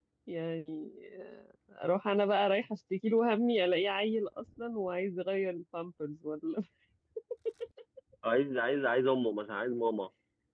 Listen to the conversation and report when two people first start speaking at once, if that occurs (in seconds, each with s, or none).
none